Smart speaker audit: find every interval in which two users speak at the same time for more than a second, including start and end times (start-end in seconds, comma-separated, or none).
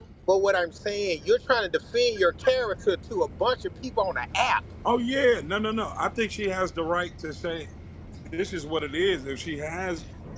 none